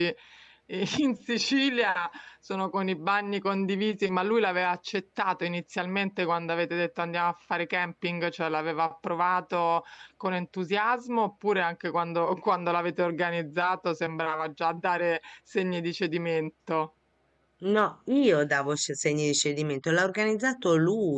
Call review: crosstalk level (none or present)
none